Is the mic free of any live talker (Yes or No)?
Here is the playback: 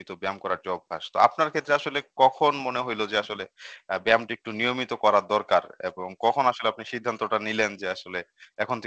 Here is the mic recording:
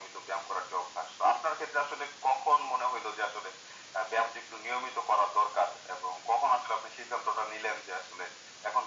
Yes